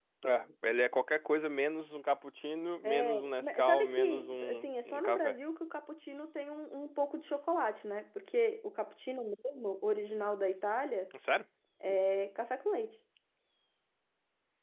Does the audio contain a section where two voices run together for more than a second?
Yes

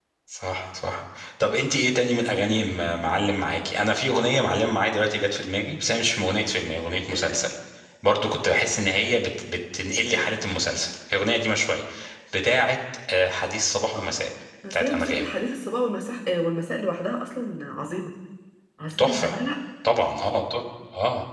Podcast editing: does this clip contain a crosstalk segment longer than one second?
No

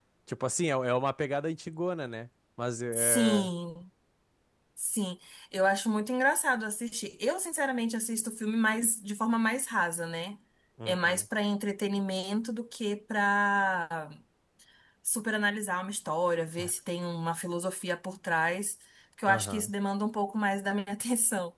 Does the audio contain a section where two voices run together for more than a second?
No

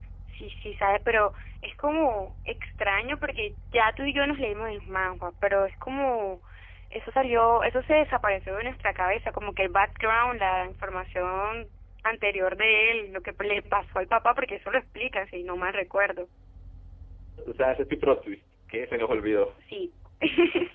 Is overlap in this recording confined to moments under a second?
Yes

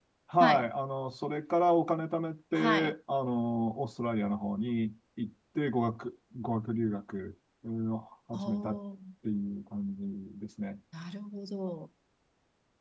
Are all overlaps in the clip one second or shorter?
Yes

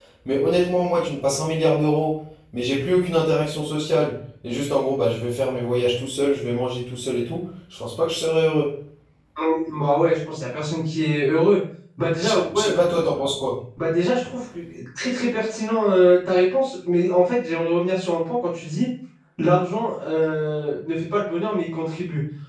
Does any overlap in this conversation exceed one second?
No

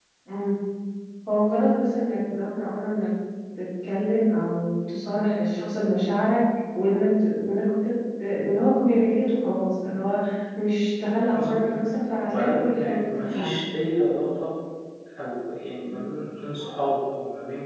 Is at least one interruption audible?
Yes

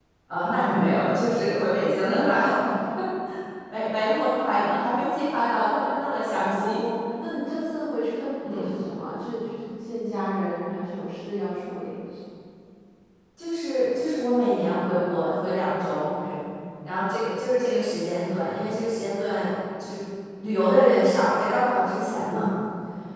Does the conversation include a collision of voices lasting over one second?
No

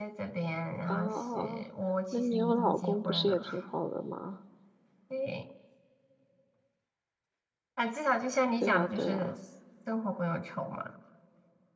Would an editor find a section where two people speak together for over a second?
Yes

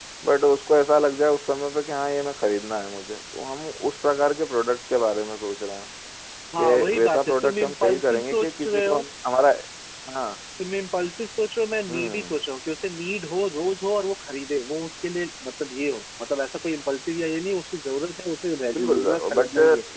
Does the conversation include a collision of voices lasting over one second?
Yes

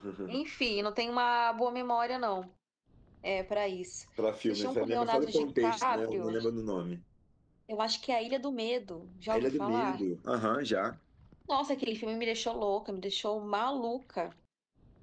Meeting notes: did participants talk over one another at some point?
Yes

